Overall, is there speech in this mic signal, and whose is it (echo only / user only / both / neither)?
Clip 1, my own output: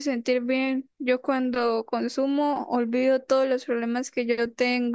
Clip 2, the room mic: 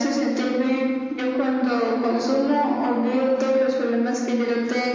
echo only